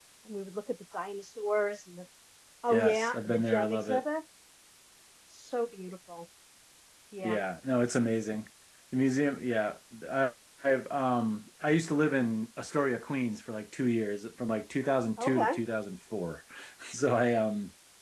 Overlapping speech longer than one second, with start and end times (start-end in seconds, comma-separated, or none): 2.7-4.0